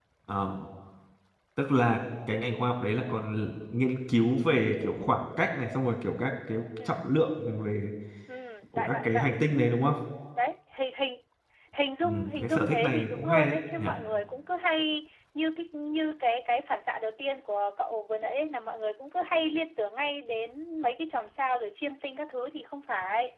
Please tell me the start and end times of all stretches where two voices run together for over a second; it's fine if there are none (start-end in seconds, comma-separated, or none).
12.0-13.8